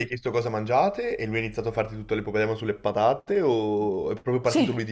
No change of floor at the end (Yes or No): No